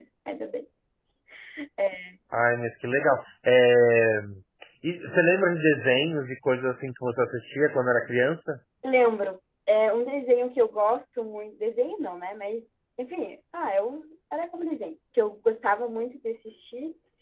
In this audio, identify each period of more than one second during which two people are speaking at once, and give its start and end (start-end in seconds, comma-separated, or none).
none